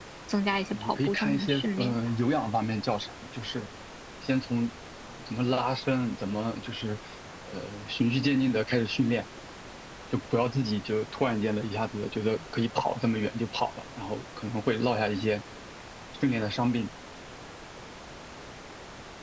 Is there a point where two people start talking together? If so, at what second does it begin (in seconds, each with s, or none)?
0.7 s